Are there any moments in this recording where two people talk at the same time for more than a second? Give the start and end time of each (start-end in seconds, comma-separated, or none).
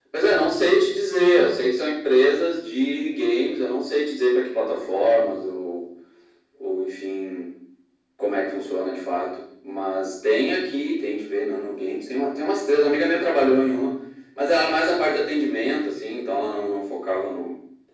none